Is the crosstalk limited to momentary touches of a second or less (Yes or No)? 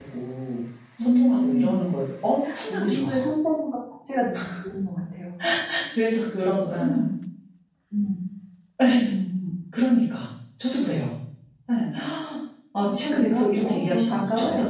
No